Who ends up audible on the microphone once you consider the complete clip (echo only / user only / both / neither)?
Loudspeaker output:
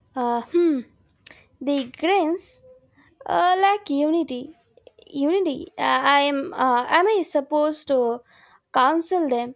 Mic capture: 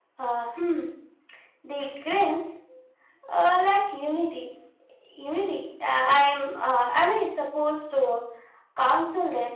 echo only